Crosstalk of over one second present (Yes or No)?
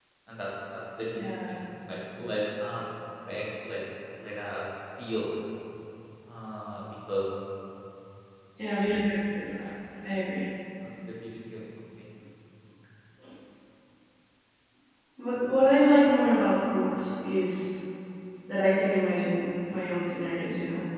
No